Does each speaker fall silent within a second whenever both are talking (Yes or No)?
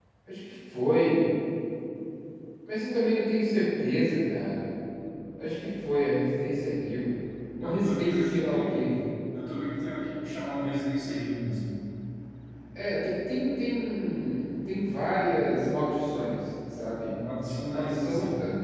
No